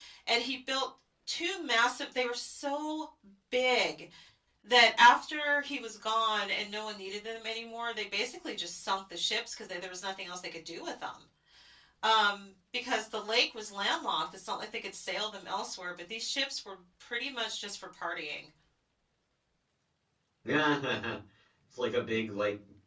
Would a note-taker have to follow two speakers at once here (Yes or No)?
No